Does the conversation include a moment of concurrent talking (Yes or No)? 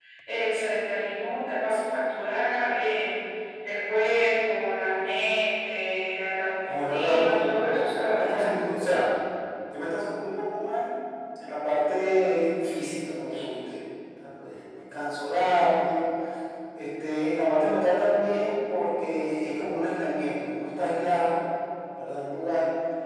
Yes